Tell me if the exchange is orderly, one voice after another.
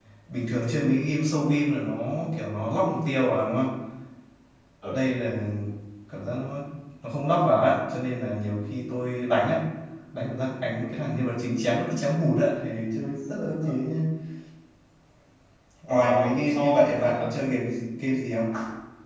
No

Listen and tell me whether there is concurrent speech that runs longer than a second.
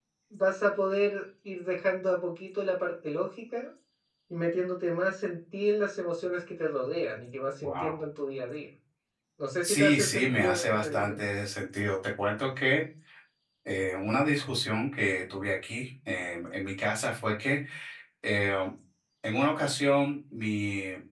Yes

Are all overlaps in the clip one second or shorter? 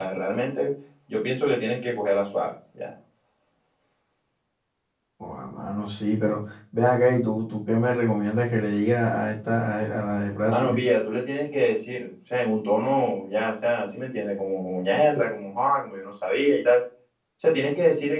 Yes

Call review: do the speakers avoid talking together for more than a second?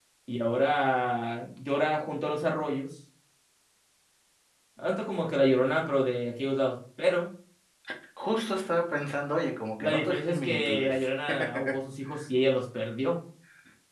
No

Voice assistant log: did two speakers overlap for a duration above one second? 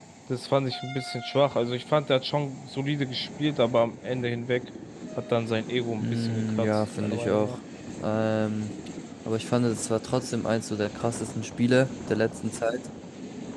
Yes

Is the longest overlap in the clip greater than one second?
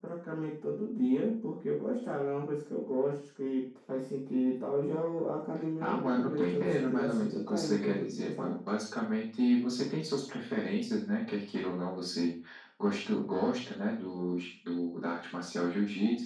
Yes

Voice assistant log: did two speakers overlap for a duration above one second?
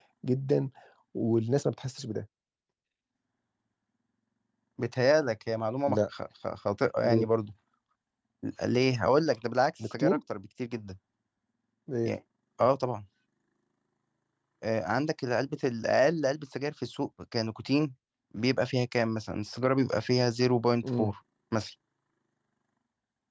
No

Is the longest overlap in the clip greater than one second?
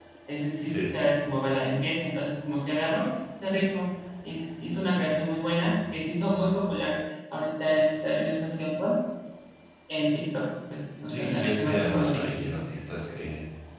Yes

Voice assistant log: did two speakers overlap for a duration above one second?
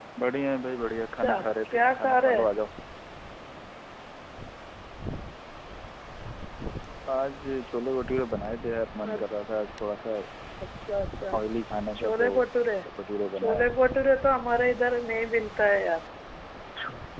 Yes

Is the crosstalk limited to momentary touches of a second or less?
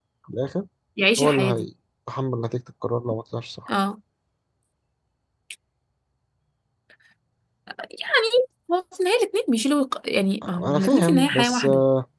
No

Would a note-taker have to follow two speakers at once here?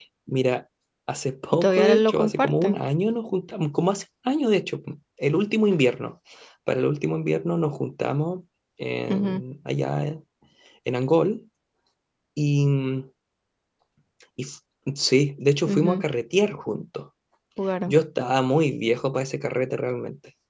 Yes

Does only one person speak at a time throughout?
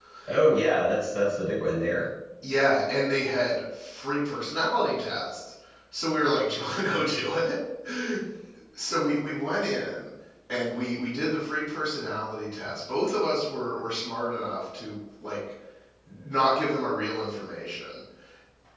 Yes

